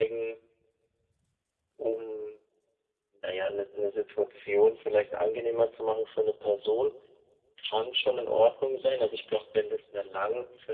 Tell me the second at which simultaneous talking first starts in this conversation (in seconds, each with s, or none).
none